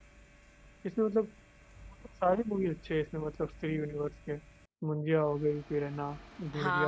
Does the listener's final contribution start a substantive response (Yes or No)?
Yes